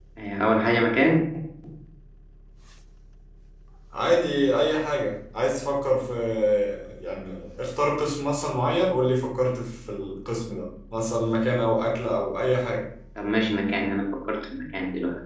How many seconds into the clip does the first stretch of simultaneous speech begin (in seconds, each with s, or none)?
none